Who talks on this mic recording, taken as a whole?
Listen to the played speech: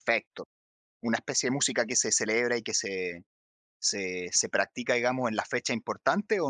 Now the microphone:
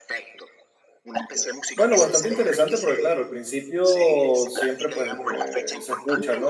both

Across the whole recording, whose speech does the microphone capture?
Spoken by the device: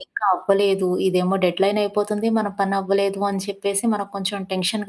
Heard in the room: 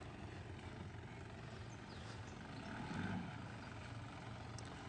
neither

